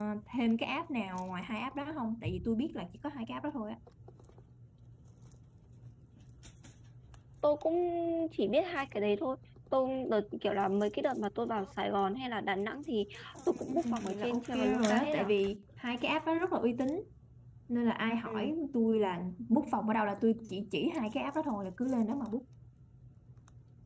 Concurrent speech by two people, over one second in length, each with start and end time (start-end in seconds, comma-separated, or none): 13.5-15.3